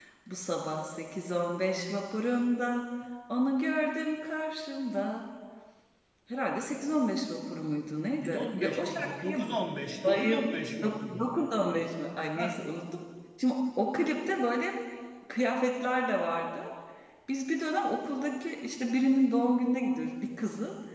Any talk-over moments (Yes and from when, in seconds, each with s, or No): Yes, from 8.2 s